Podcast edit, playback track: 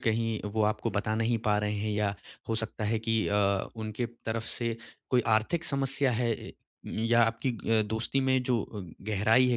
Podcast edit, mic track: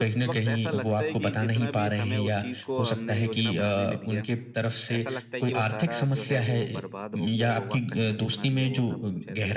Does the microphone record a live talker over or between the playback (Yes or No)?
Yes